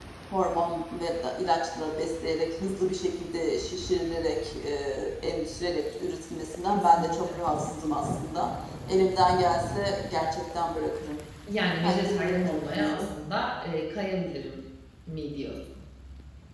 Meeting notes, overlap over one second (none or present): present